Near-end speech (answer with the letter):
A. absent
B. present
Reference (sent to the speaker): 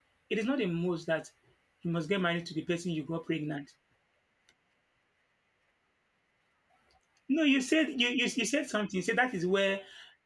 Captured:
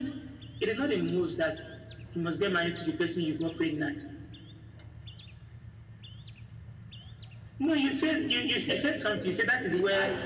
B